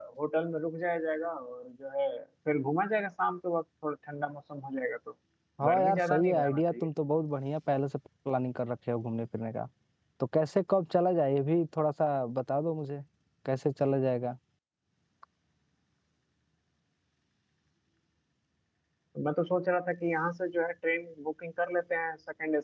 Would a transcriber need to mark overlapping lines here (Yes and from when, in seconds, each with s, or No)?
Yes, from 5.7 s